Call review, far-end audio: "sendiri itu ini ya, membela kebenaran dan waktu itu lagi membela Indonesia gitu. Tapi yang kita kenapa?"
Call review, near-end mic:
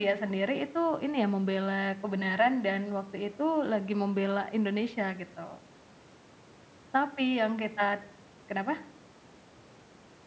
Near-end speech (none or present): none